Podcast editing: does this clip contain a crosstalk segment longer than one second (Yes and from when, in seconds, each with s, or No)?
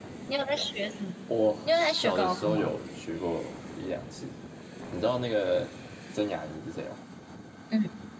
Yes, from 1.3 s